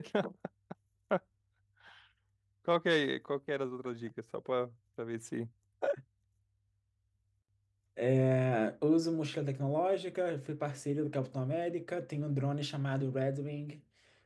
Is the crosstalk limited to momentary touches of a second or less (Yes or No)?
Yes